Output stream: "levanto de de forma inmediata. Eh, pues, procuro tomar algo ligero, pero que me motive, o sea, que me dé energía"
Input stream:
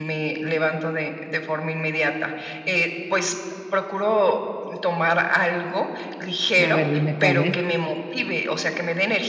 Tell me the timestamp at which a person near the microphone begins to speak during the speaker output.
6.6 s

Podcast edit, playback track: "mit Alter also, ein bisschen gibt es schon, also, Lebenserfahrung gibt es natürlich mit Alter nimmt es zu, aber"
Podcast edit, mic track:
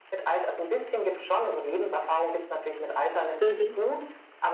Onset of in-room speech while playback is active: 3.4 s

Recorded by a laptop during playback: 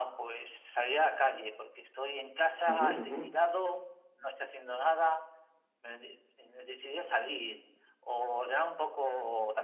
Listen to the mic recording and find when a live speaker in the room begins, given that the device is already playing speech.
2.7 s

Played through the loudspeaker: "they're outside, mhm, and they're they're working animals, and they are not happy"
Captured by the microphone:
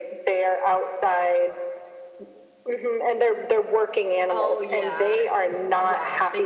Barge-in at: 4.3 s

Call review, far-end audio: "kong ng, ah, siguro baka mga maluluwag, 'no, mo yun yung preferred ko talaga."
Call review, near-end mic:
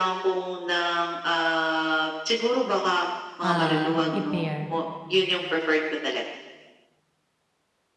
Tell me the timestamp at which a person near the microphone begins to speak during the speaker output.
3.5 s

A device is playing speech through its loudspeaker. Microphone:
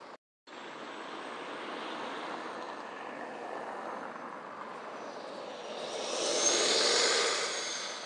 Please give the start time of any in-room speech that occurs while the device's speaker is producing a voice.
none

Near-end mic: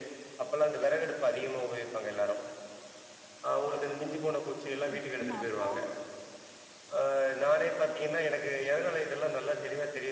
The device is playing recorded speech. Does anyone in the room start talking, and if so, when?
5.0 s

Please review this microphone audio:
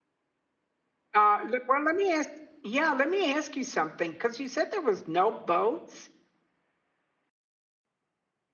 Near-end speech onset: 1.1 s

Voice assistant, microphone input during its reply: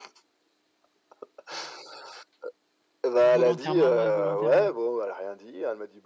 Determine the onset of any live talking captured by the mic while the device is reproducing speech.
3.2 s

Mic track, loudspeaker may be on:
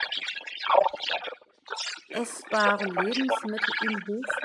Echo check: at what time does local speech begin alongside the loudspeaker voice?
2.1 s

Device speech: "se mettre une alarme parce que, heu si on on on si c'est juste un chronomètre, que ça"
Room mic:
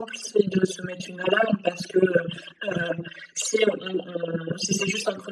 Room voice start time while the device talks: none

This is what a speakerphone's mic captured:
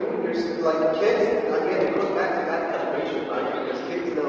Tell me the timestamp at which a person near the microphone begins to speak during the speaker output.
none

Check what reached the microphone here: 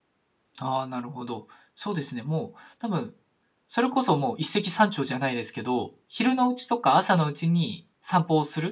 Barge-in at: 0.6 s

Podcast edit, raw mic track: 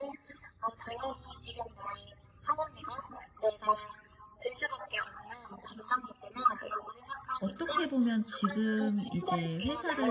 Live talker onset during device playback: 7.4 s

